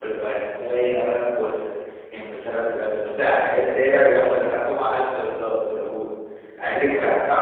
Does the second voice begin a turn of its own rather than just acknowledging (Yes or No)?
No